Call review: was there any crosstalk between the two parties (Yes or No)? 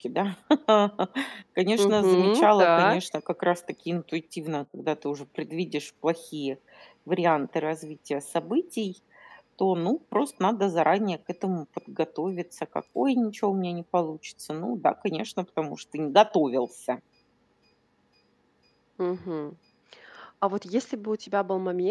Yes